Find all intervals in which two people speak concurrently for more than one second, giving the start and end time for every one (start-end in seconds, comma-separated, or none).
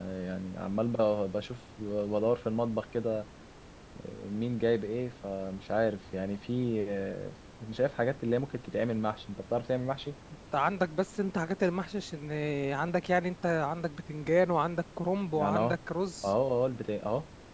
none